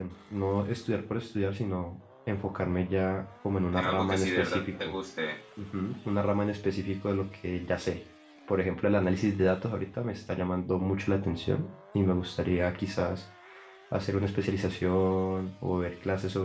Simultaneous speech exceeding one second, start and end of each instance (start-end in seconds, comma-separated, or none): 3.7-5.0